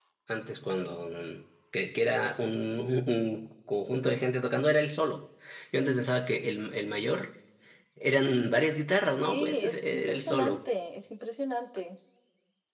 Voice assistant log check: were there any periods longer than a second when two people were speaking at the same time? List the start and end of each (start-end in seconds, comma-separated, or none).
9.1-10.6